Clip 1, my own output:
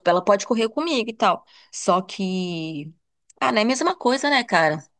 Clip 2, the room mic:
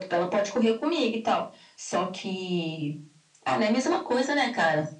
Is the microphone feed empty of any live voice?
Yes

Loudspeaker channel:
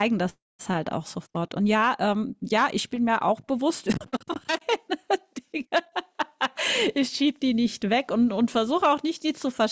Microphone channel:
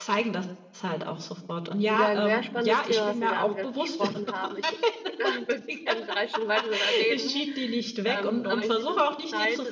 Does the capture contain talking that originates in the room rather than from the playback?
Yes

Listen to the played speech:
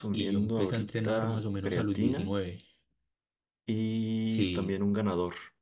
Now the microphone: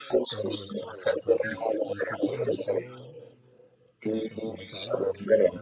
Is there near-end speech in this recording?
Yes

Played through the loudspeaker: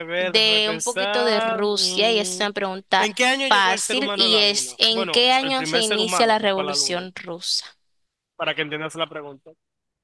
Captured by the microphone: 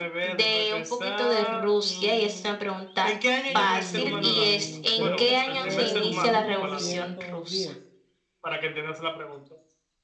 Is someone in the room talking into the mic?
Yes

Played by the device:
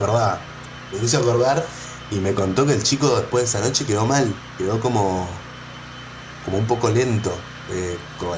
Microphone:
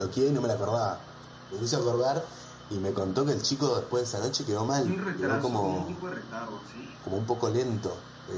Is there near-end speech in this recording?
Yes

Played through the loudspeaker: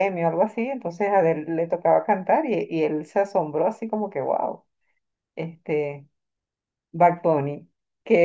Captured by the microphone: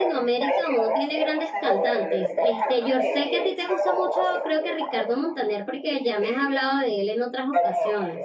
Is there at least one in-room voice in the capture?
Yes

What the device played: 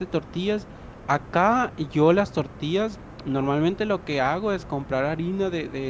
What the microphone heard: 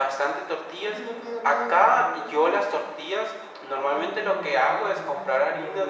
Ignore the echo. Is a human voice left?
Yes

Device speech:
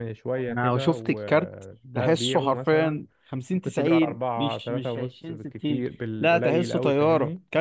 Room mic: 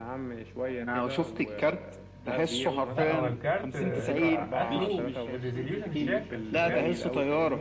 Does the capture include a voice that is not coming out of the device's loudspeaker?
Yes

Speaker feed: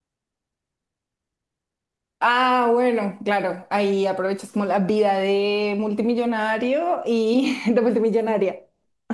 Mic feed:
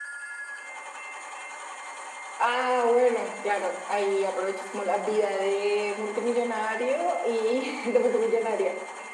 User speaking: No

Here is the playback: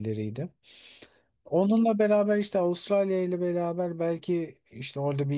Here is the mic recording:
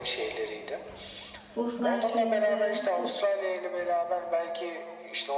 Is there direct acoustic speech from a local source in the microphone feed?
Yes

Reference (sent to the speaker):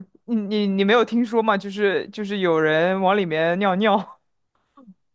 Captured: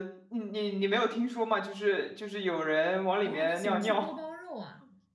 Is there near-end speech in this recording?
Yes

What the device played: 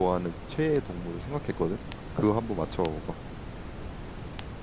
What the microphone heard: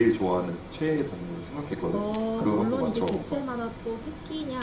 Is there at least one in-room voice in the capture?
Yes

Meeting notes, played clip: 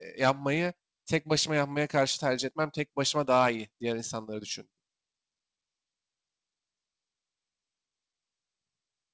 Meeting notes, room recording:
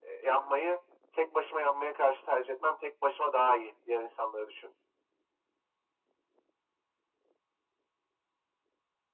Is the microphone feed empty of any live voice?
Yes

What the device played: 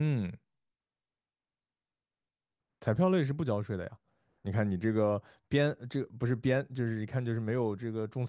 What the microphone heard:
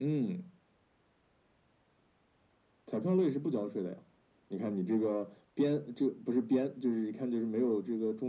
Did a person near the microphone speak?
No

